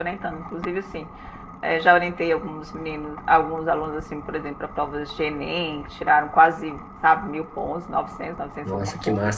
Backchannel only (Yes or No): No